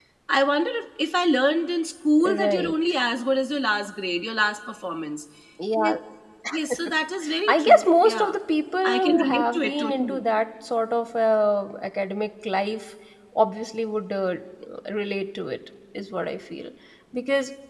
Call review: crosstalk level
present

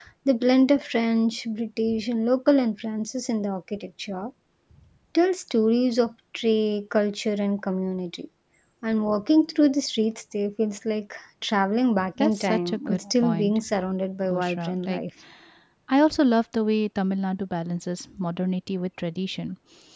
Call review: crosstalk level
present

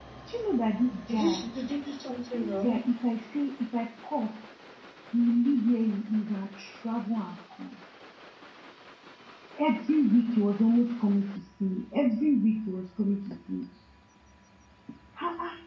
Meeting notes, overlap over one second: none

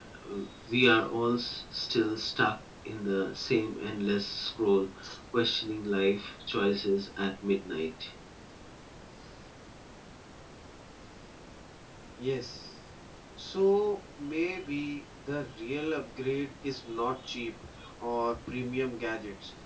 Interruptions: none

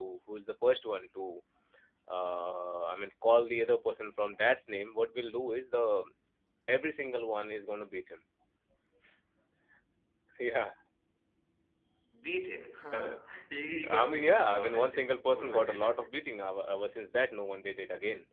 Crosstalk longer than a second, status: present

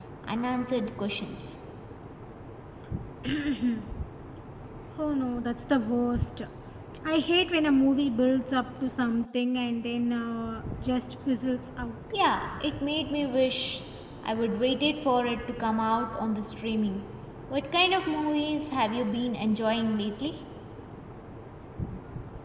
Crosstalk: none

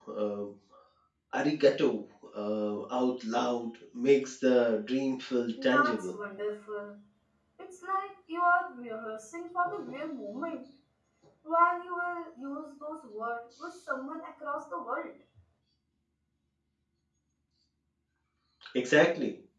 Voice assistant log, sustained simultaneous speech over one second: none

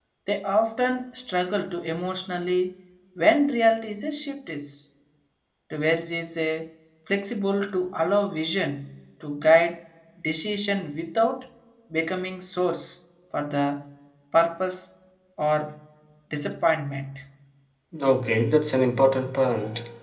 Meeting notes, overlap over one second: none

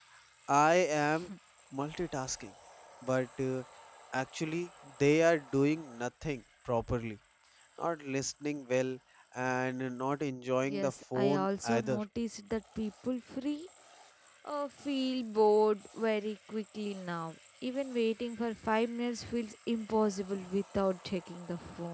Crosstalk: present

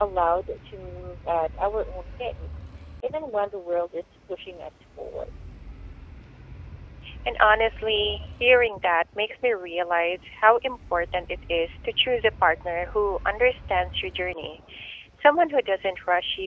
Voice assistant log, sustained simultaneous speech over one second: none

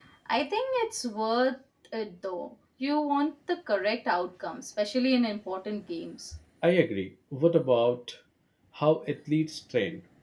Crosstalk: none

